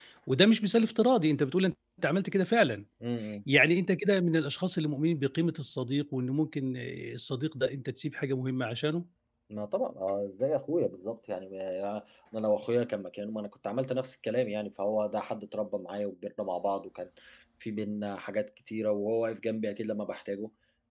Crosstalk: none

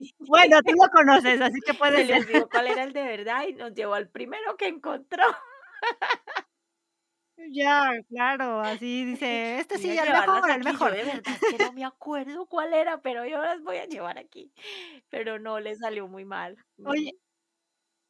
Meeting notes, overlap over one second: present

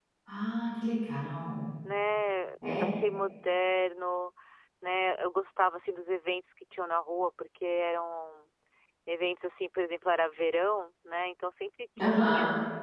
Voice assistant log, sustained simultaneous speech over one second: none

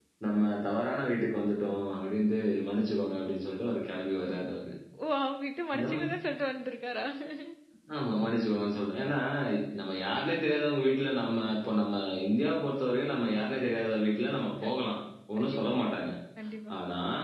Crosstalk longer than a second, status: none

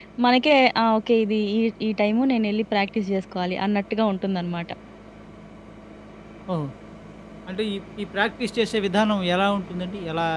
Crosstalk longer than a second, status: none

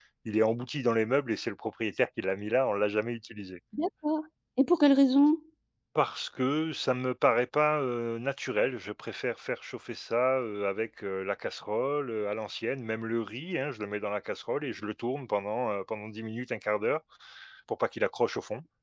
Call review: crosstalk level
none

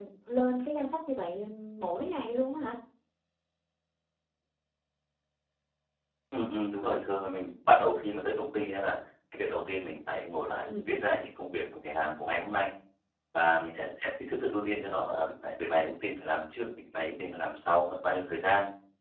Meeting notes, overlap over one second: none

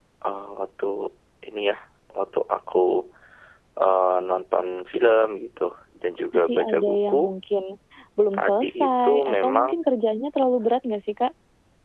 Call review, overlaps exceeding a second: present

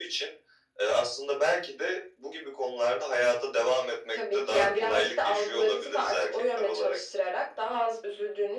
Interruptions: present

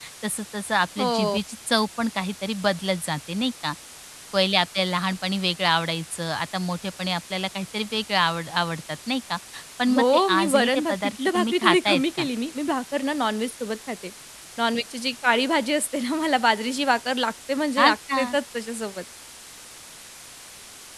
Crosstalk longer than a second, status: present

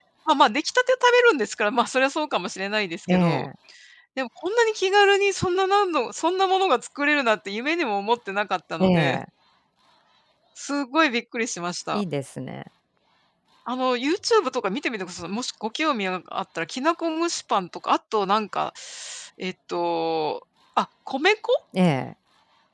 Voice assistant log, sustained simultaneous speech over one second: none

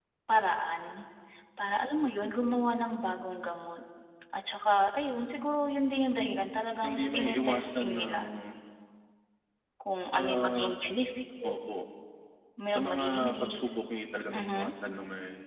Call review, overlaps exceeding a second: present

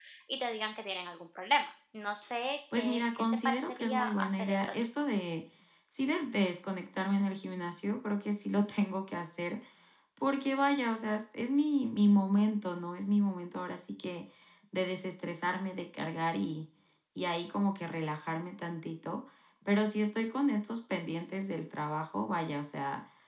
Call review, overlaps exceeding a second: present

